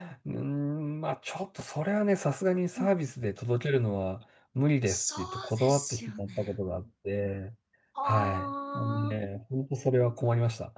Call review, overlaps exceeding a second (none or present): present